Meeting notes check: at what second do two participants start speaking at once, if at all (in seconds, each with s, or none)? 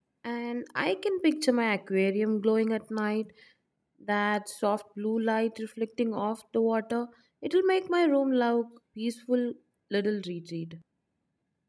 none